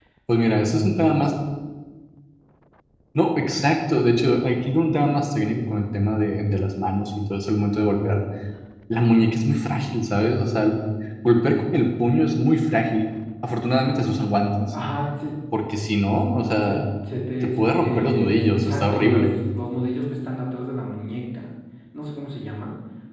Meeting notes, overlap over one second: present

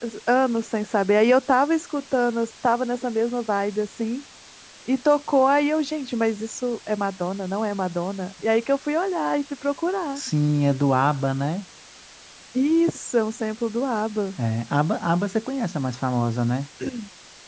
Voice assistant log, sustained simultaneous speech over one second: none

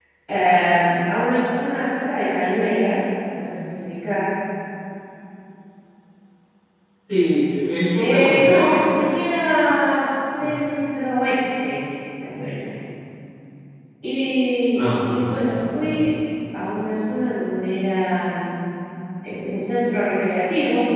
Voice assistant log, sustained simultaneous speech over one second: present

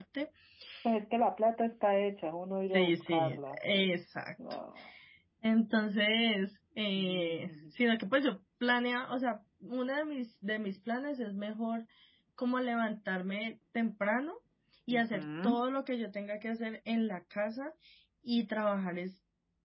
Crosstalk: present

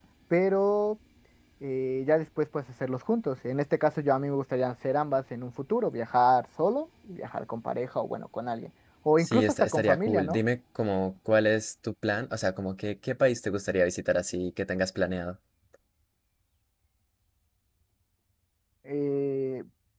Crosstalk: present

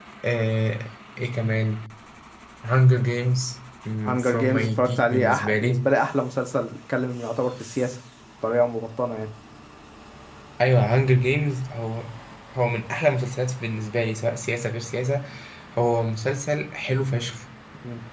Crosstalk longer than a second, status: present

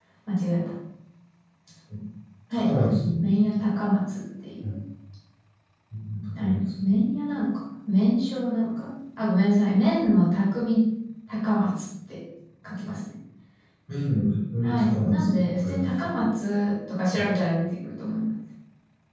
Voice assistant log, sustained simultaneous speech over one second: present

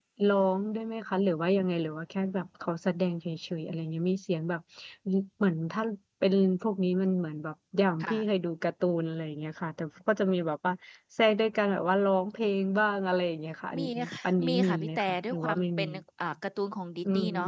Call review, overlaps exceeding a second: present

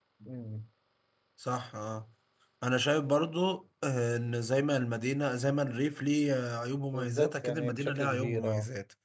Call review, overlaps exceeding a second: present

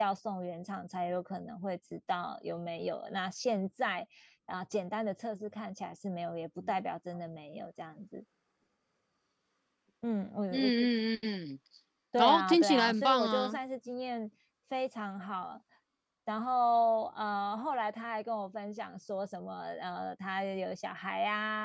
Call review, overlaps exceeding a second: present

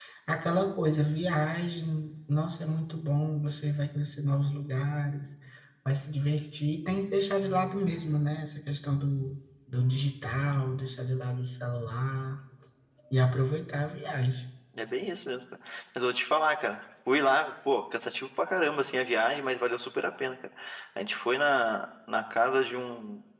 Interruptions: none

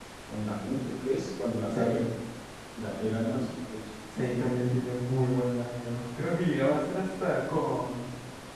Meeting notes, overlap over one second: none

